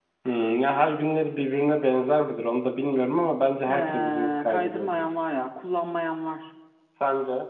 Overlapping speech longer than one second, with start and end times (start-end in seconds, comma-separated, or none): 3.6-5.0